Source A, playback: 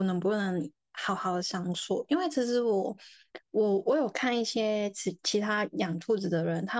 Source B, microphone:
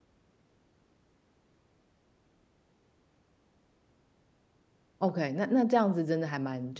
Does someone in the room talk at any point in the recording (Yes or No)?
Yes